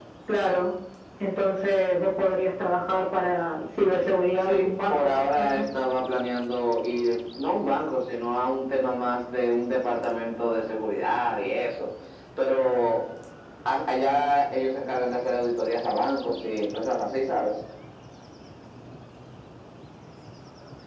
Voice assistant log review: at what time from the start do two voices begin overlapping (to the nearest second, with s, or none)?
4 s